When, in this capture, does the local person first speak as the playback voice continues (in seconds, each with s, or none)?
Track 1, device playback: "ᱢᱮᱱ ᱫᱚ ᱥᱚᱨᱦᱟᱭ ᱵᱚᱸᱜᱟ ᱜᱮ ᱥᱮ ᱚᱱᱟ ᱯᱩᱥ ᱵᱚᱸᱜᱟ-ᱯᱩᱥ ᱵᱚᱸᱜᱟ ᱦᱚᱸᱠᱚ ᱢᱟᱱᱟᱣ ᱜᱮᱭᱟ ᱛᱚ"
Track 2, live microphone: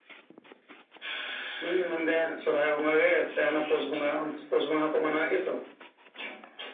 none